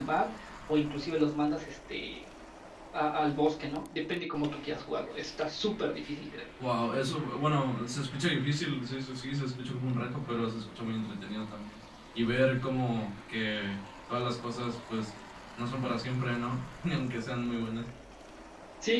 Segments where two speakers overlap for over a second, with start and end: none

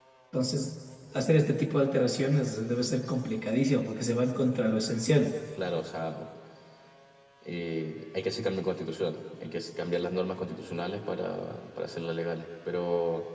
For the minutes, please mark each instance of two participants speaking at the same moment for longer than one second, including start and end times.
none

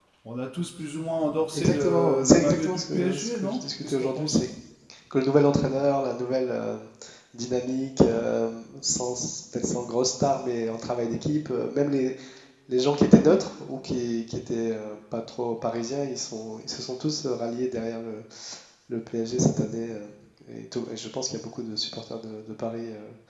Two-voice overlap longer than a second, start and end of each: 1.5-4.4

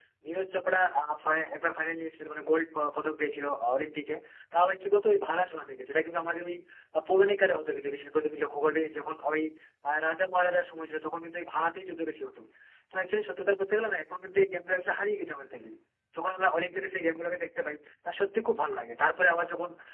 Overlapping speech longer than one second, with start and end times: none

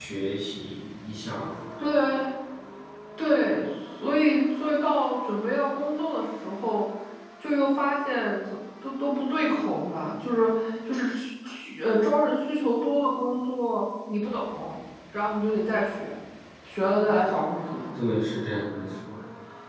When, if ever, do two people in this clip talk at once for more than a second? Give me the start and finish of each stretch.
none

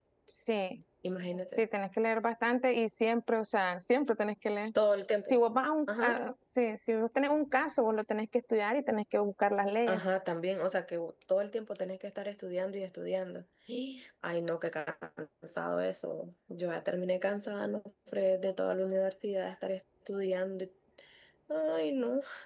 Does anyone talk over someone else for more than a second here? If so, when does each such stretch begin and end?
none

